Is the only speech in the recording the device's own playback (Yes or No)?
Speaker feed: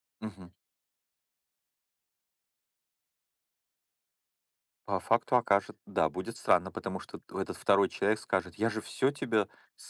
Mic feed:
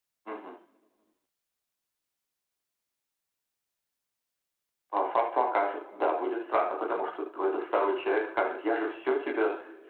Yes